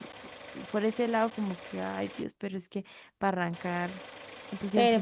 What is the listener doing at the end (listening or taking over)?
taking over